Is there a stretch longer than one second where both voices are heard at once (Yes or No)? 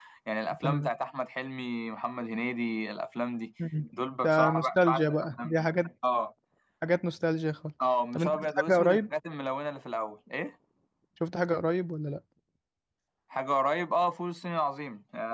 Yes